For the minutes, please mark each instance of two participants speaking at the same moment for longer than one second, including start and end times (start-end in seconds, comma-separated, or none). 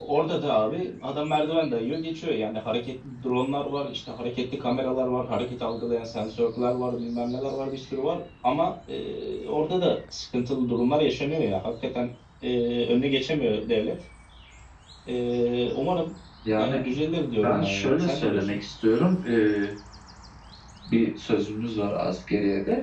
17.4-18.6